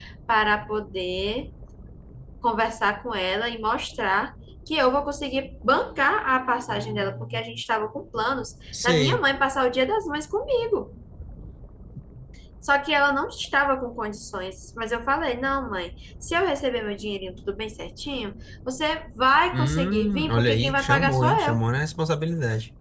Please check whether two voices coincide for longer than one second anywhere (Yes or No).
Yes